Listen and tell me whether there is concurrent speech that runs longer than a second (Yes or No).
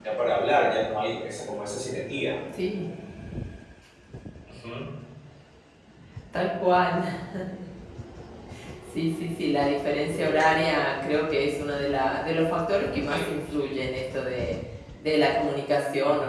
No